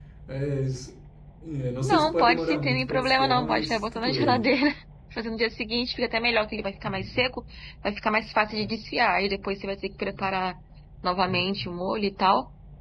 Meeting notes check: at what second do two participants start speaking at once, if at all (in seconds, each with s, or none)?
1.8 s